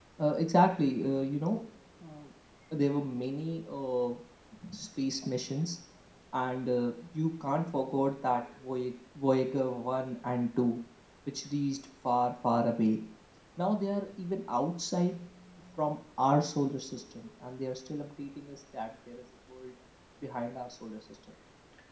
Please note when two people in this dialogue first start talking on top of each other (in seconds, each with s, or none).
none